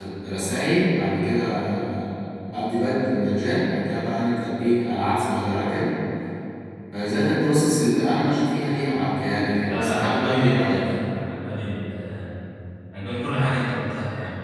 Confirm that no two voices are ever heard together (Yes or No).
No